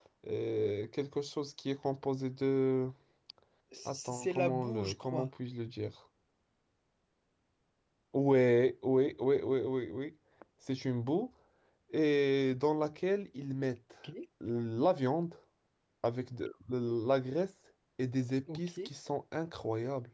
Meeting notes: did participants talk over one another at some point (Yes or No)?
Yes